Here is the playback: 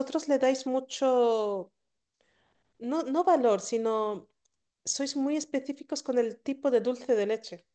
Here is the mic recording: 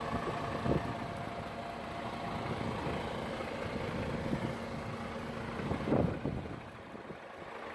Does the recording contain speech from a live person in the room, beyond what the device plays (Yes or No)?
No